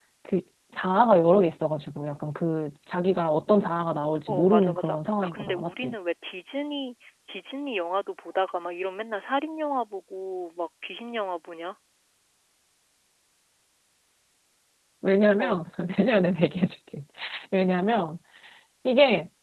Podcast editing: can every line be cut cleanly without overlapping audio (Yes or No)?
No